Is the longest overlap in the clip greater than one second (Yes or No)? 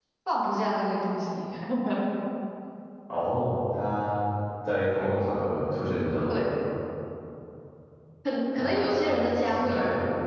Yes